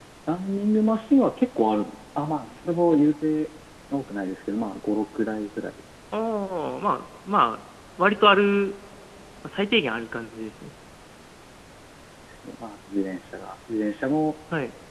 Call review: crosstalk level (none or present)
none